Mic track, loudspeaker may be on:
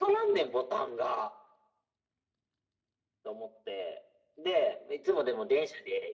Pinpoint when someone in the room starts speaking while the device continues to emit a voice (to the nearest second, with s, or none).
none